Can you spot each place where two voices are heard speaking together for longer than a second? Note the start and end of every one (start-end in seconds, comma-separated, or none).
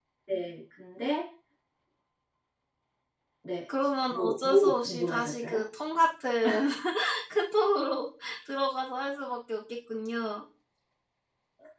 4.1-5.6